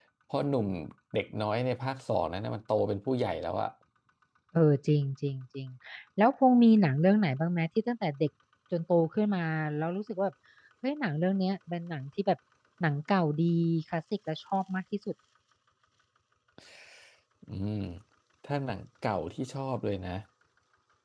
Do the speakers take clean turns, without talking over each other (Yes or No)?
Yes